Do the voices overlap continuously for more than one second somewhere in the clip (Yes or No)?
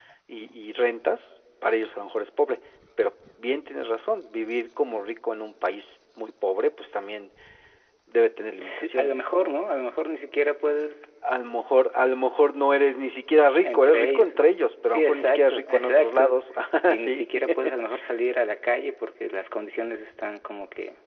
Yes